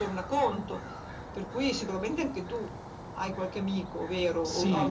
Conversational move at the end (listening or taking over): taking over